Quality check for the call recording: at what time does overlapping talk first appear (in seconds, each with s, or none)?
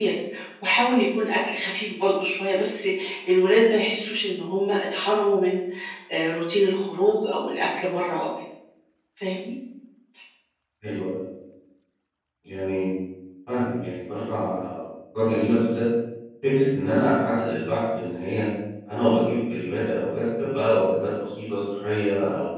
none